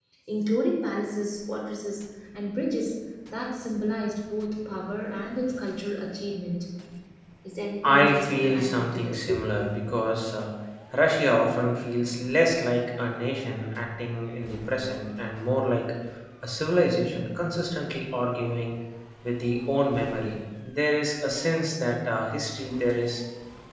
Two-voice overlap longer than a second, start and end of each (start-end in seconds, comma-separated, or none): 7.9-9.2